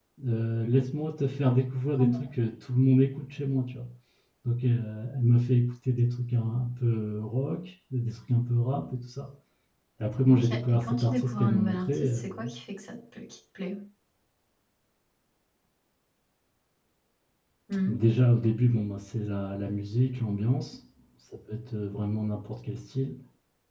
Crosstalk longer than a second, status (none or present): present